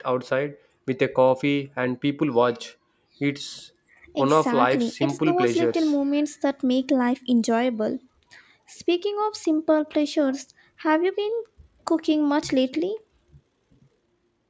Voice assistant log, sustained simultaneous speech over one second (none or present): present